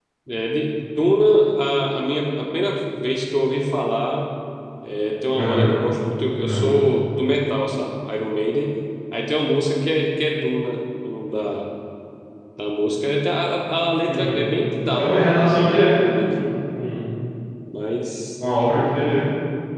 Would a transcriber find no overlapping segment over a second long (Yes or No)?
No